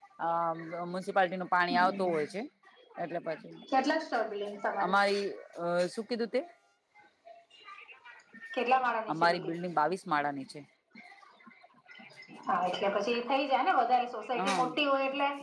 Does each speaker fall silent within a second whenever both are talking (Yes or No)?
Yes